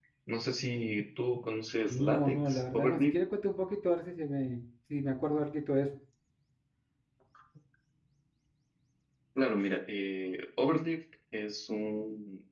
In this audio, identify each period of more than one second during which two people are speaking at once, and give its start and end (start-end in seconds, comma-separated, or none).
1.9-3.2